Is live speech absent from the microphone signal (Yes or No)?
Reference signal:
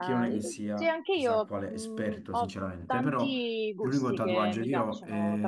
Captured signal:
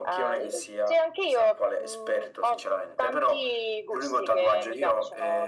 Yes